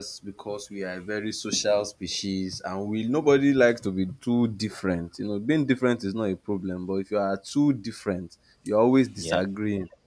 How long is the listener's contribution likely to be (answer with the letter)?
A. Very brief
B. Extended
A